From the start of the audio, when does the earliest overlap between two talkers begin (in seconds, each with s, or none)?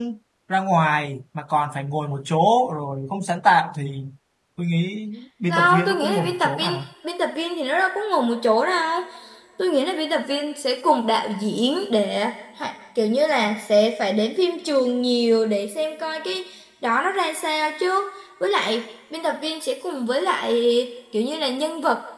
5.5 s